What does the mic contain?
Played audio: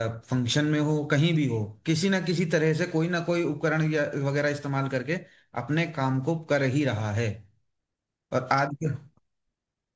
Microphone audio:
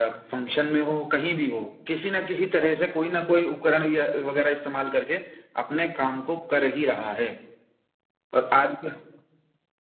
echo only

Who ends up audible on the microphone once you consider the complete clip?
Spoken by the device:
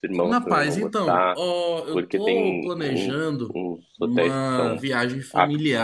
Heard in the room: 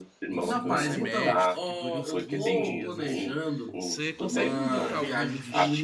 both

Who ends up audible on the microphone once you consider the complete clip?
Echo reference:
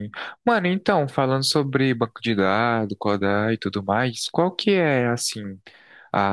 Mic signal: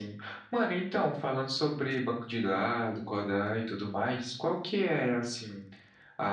echo only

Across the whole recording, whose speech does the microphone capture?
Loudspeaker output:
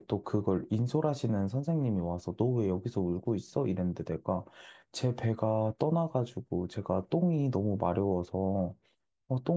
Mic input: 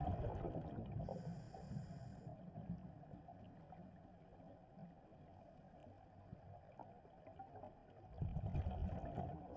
neither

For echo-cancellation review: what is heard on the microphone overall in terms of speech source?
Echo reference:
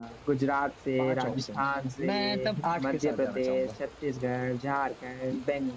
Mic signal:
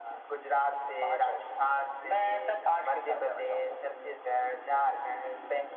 echo only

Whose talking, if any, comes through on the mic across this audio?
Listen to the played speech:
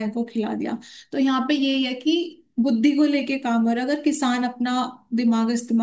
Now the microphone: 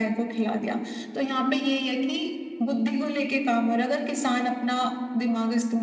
echo only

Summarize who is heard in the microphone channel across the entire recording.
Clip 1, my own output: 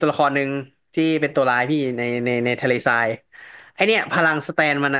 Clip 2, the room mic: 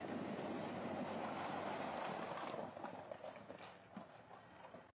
neither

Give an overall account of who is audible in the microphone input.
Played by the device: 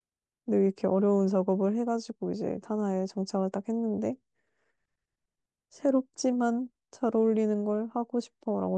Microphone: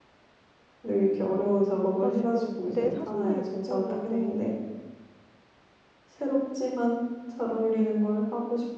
both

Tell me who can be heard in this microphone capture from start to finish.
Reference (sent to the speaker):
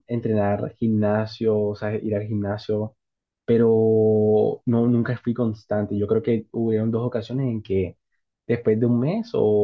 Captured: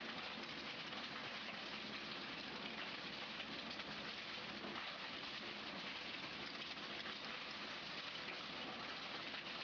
neither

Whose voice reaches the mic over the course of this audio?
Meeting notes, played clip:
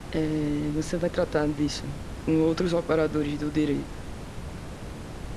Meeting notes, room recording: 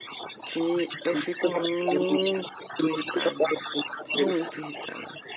both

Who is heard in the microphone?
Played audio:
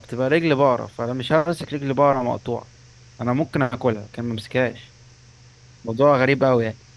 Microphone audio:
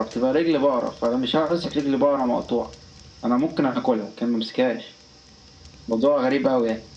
echo only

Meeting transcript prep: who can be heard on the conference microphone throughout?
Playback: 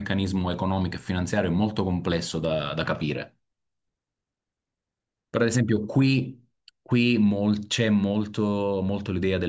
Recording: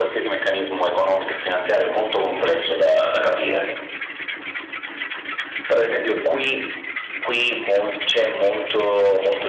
echo only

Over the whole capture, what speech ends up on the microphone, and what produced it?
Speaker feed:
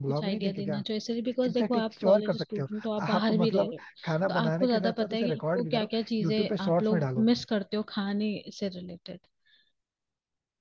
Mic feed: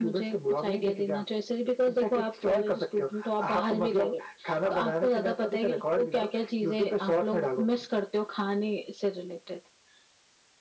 echo only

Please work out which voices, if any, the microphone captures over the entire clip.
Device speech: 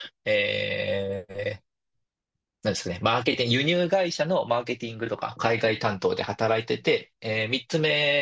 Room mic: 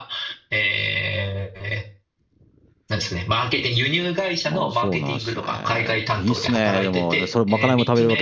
both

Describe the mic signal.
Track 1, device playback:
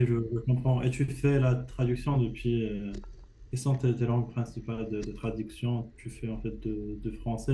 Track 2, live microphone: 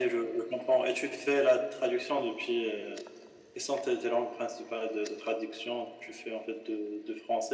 echo only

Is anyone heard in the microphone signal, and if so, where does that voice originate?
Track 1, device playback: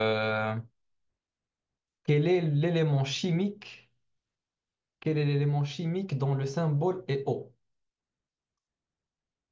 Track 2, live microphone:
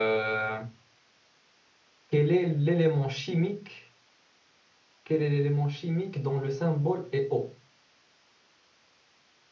echo only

